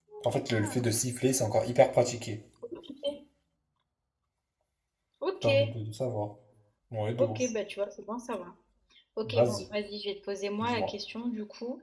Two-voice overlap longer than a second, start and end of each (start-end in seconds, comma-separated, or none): none